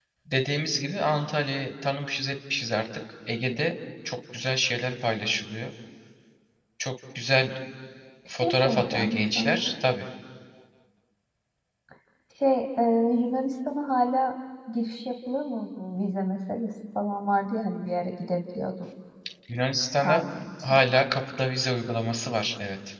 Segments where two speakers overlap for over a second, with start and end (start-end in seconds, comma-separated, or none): 8.3-9.7